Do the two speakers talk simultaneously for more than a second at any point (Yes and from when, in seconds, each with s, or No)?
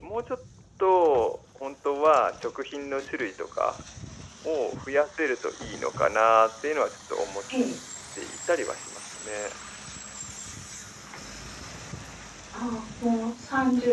No